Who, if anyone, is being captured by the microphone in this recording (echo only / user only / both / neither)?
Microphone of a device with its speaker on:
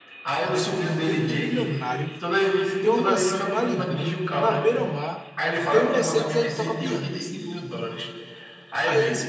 both